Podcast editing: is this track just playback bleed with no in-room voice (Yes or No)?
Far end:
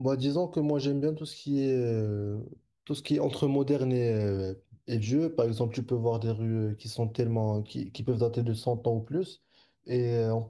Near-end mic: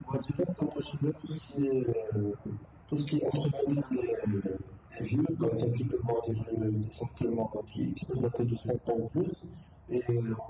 Yes